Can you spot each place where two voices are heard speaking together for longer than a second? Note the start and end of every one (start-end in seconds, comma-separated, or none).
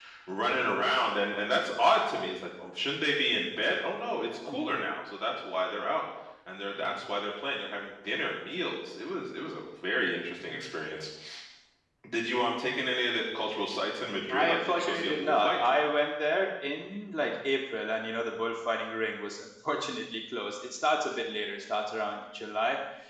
14.3-15.6